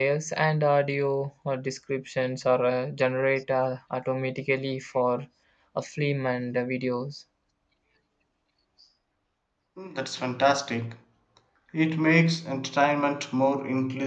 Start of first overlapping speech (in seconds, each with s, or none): none